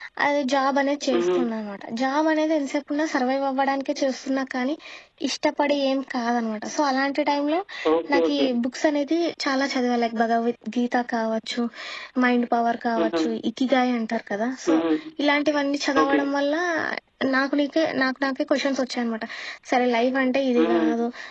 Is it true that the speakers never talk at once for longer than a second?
Yes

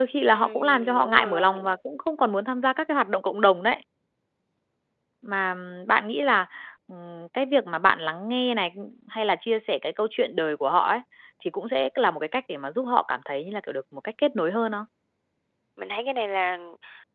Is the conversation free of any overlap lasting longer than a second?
No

